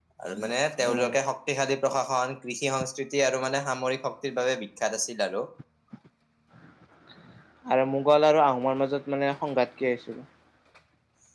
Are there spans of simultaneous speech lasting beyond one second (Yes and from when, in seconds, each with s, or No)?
No